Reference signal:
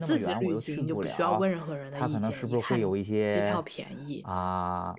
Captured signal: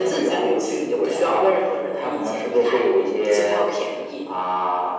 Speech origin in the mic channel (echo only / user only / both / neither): echo only